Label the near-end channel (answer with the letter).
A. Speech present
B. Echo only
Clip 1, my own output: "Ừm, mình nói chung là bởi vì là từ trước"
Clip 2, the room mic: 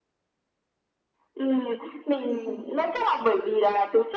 A